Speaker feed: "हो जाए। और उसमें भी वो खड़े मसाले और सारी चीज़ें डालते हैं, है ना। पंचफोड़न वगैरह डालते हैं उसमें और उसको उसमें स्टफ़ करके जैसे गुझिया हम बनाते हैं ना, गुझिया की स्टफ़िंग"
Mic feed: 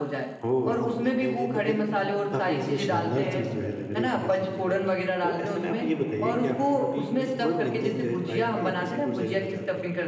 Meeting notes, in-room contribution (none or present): present